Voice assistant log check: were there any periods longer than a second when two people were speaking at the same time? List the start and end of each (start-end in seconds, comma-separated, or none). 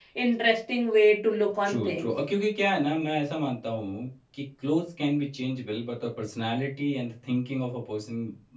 none